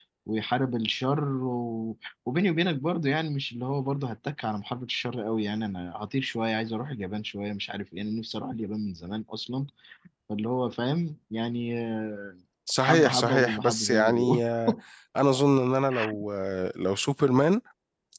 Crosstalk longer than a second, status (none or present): present